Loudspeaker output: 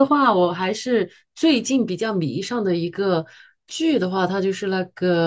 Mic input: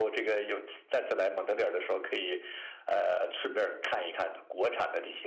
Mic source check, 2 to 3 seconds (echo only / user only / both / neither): user only